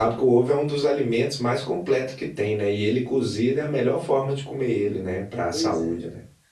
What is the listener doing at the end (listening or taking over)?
taking over